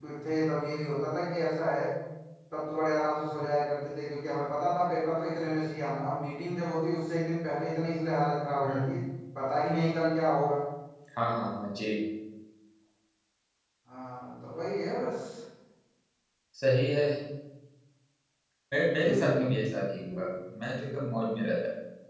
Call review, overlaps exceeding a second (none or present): none